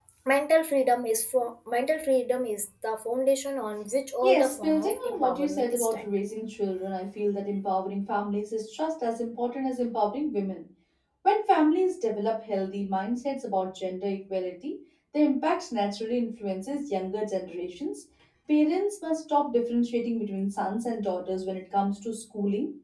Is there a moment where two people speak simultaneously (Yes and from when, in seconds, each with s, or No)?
Yes, from 4.2 s